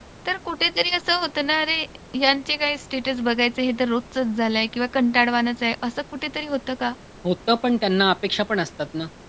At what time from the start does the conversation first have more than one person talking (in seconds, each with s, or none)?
none